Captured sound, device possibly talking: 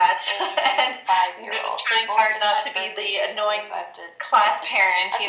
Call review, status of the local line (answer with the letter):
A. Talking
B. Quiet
B